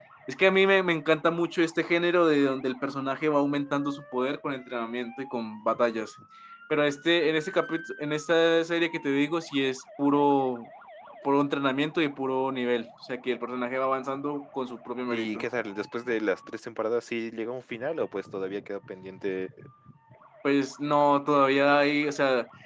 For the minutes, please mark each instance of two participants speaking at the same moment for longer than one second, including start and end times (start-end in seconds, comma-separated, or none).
none